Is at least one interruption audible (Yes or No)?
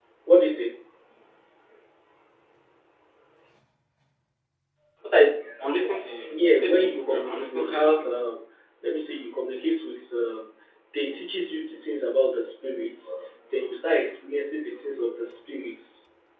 Yes